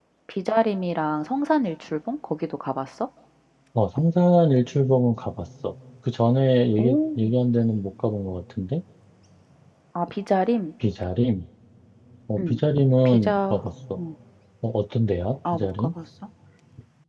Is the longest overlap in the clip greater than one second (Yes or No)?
No